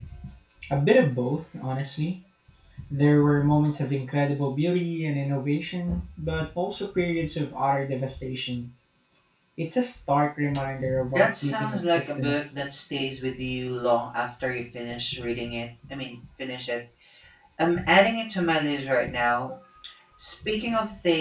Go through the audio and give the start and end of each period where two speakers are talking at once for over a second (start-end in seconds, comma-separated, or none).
11.1-12.5